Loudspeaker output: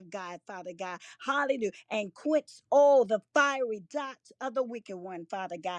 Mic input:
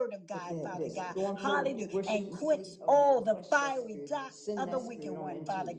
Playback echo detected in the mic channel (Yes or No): Yes